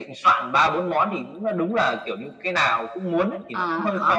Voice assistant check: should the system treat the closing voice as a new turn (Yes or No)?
Yes